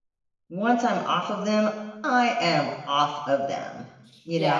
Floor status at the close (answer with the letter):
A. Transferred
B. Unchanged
A